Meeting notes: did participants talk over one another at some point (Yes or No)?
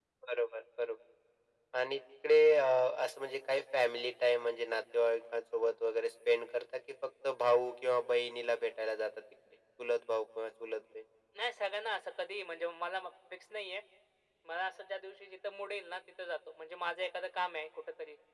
No